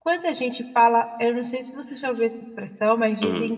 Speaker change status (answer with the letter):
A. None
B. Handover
A